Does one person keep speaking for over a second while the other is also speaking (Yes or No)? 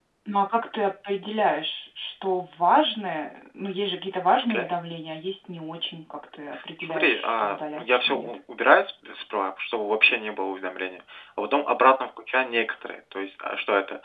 Yes